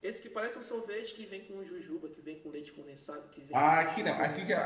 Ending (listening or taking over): taking over